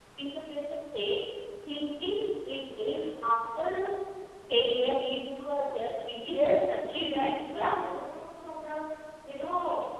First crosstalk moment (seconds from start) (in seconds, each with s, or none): 6.3 s